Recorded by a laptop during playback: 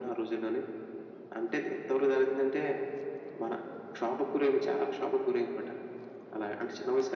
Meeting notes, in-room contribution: none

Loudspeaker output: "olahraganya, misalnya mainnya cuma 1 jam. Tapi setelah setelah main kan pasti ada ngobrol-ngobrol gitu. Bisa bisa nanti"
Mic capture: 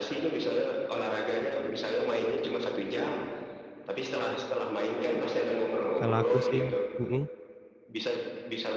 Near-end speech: present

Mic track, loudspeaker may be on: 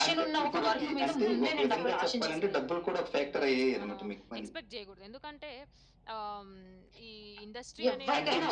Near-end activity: present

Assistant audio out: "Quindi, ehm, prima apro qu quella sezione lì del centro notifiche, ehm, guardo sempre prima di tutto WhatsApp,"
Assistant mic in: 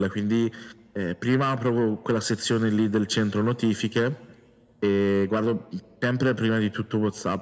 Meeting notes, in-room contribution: none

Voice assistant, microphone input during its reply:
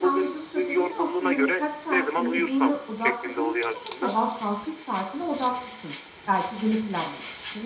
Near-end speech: present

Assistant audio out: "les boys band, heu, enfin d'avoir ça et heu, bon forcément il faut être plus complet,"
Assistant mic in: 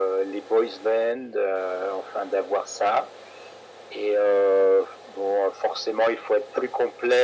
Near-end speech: none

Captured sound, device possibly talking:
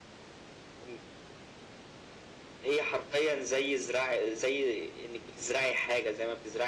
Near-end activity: none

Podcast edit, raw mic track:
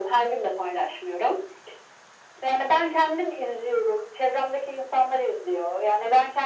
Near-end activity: none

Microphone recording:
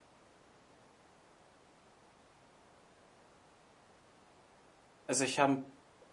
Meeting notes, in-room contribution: present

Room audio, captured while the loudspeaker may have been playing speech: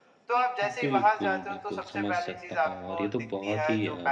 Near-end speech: present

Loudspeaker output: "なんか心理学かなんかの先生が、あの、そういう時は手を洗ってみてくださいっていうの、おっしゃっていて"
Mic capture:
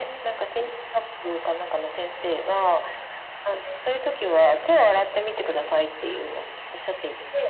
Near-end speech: none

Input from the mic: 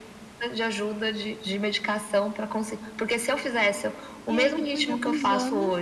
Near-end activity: present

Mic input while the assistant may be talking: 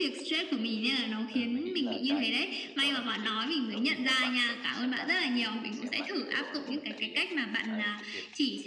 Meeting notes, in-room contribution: present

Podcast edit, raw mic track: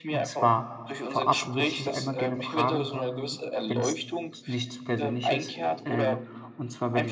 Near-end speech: present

